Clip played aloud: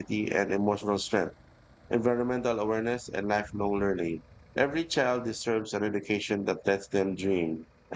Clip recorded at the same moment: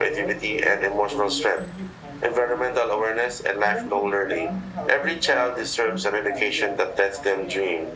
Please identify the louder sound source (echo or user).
echo